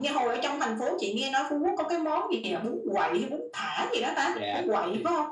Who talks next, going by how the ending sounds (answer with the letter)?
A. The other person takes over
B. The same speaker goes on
A